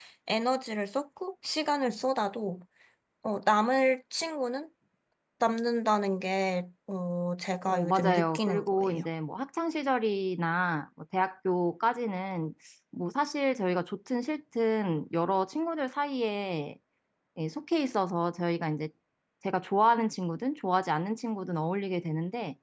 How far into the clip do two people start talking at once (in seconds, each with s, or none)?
7.7 s